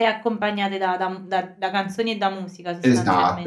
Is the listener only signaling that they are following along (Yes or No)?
No